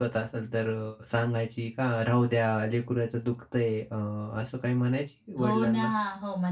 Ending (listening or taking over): taking over